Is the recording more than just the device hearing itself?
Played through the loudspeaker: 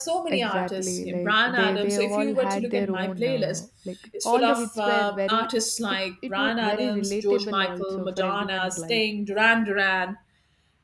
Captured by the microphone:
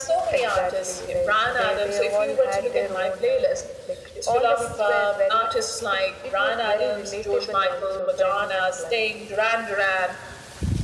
No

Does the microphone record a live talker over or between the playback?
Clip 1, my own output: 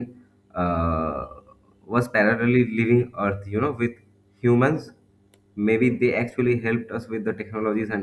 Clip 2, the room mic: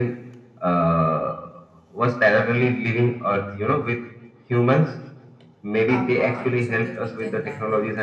Yes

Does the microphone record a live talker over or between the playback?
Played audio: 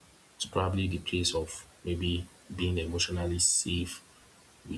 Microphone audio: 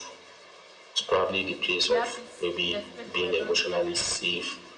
Yes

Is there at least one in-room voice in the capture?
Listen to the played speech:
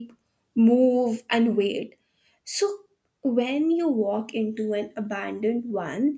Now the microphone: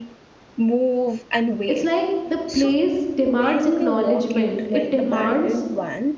Yes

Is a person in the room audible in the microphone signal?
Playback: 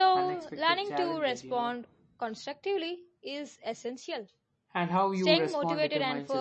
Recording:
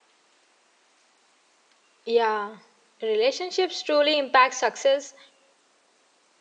Yes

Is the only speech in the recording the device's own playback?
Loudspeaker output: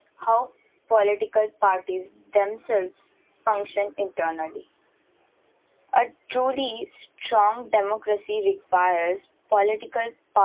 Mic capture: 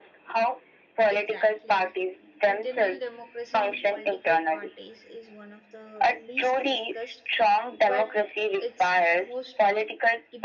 No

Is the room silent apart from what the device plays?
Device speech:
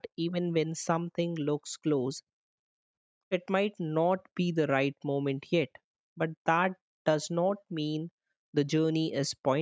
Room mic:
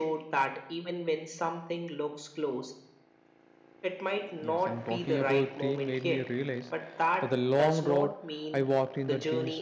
No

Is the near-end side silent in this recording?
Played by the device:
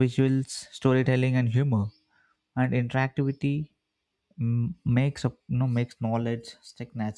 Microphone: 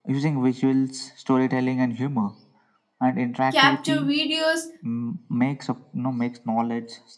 No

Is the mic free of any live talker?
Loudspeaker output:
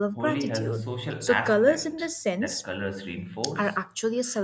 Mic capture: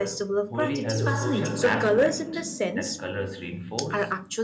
No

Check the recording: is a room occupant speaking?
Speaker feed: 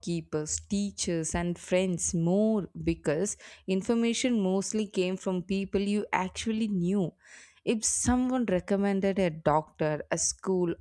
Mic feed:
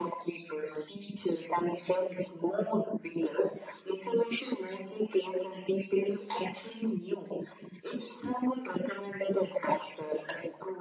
No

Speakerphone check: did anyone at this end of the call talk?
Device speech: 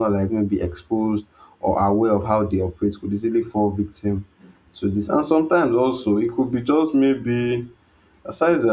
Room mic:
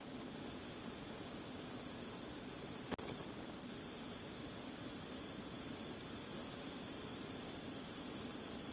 No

